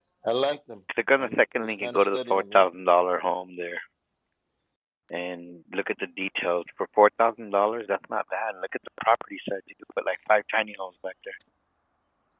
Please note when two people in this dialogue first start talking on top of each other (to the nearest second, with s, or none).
1 s